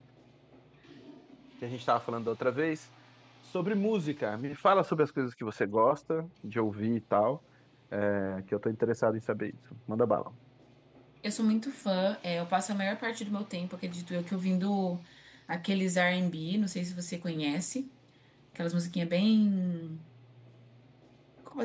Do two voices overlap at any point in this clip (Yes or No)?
No